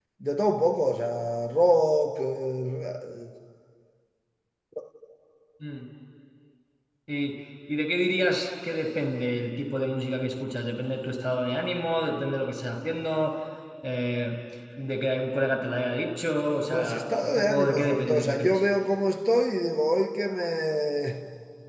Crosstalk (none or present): present